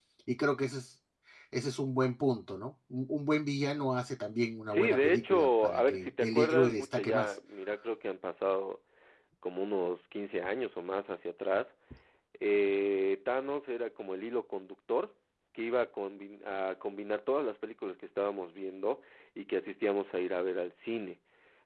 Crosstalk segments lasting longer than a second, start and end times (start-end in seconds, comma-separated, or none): 4.7-7.3